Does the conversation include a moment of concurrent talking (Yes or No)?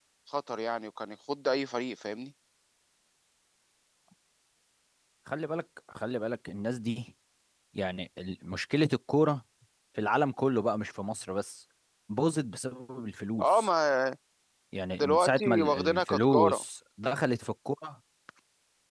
Yes